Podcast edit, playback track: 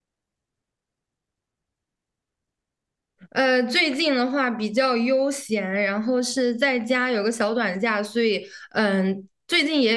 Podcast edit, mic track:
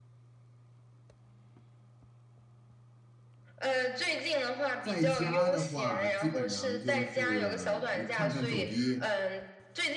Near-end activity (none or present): present